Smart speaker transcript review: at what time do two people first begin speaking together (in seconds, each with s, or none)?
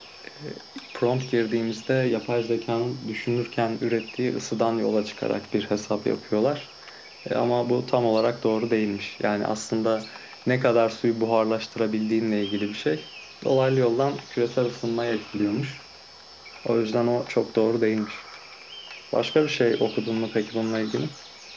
none